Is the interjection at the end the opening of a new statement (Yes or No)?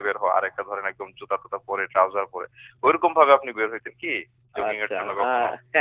Yes